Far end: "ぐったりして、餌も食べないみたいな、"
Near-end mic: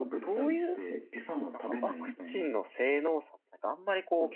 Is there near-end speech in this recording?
Yes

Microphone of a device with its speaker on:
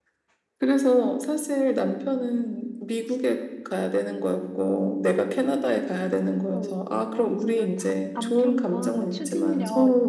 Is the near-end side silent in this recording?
No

